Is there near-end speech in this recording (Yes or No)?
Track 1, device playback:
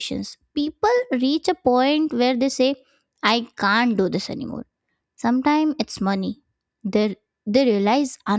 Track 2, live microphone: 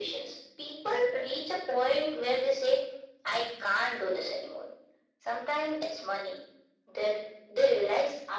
No